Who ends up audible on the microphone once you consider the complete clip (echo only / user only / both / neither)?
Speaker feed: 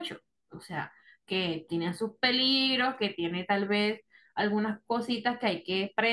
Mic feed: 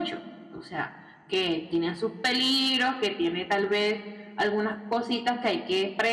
echo only